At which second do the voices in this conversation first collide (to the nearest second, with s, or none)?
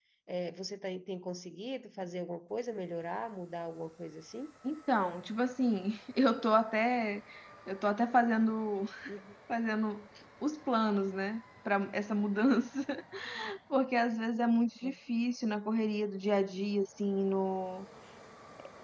none